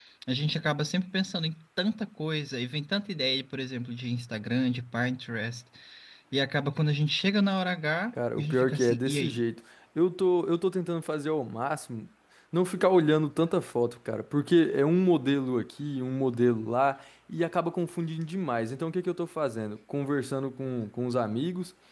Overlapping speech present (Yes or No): Yes